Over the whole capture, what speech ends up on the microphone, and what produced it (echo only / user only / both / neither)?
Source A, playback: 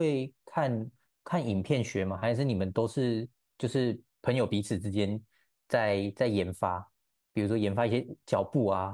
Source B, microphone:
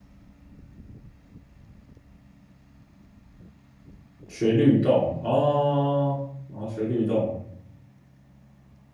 user only